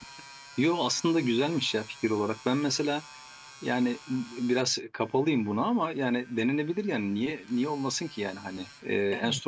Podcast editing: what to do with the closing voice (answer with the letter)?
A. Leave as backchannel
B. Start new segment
A